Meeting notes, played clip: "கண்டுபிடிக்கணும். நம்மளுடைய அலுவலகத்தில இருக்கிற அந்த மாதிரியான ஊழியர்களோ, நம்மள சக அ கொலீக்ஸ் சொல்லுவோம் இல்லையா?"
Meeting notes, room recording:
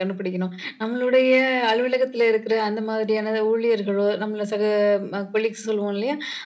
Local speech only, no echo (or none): none